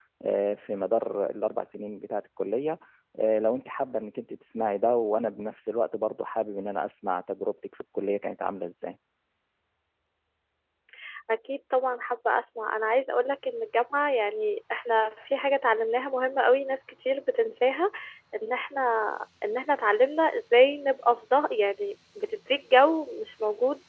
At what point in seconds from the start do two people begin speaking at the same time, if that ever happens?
none

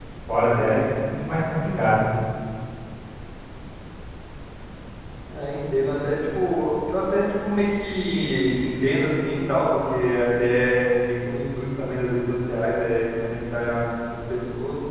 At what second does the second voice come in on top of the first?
none

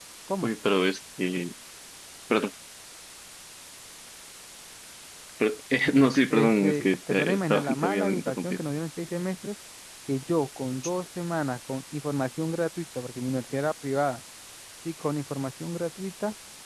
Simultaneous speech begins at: 6.3 s

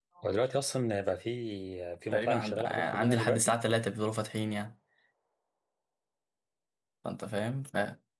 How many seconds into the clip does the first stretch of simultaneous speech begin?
2.1 s

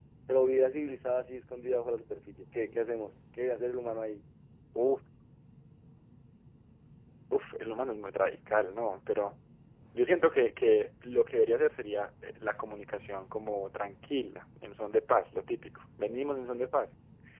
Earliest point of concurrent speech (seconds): none

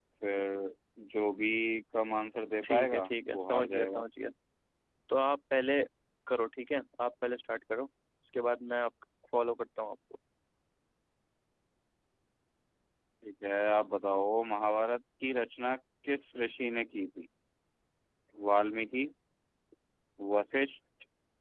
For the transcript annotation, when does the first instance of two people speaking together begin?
2.6 s

